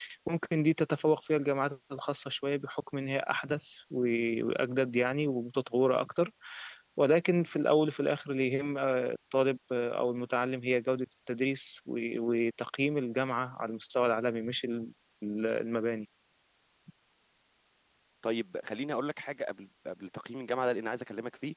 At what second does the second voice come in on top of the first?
none

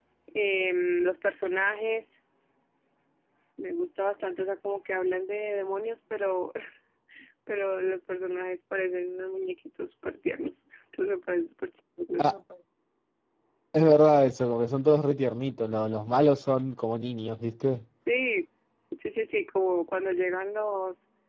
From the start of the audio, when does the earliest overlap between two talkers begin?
none

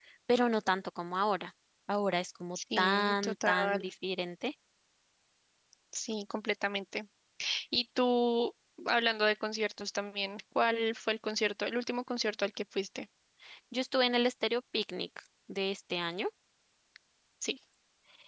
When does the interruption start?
3 s

